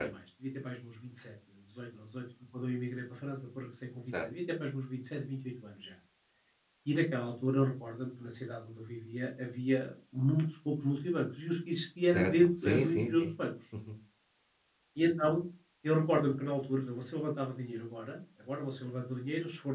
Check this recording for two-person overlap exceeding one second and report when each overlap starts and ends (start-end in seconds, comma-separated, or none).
12.1-13.3